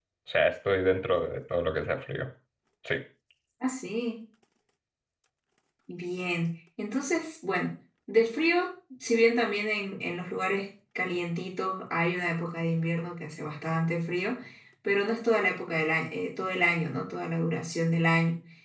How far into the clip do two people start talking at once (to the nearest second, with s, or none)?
none